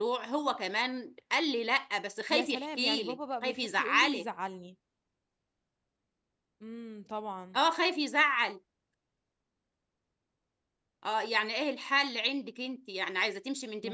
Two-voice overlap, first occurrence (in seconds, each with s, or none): 2.3 s